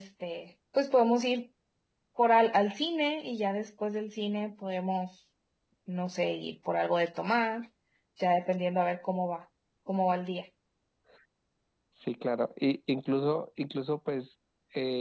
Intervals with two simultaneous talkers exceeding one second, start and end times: none

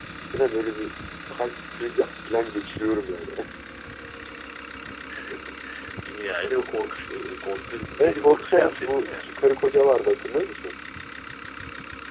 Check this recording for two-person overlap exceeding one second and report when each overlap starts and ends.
8.0-9.2

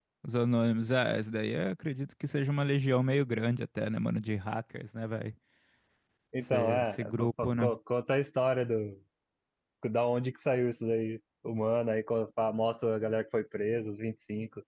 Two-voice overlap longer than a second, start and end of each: 6.4-7.7

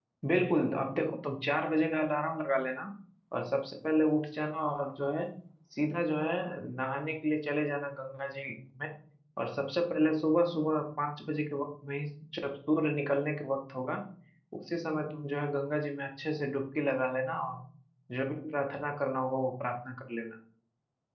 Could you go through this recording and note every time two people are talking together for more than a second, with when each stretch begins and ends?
none

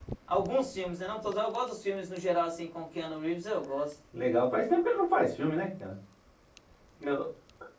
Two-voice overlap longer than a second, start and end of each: none

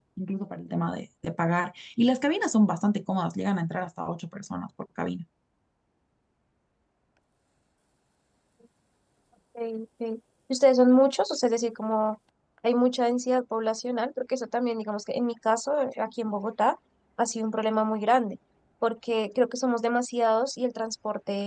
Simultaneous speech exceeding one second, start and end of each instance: none

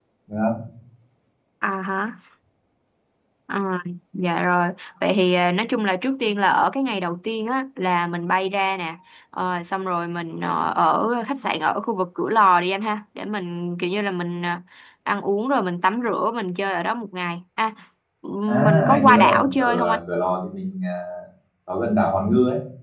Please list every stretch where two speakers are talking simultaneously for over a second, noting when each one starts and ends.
18.6-20.0

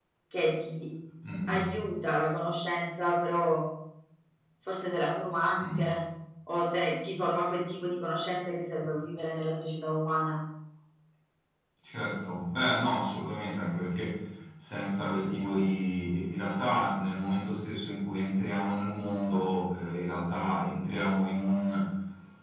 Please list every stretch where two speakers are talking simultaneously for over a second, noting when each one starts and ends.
none

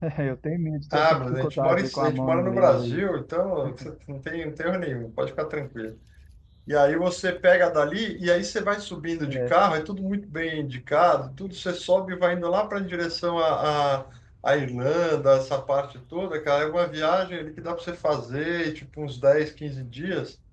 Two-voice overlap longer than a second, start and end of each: 0.9-3.0

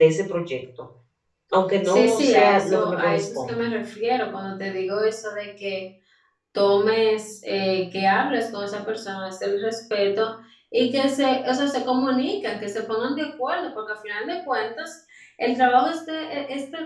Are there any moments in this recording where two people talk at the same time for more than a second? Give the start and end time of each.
1.8-3.7

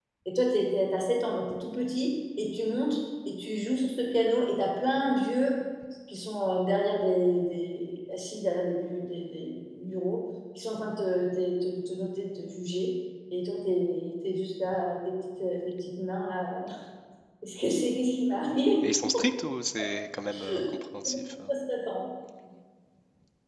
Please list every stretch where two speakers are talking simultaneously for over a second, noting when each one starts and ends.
none

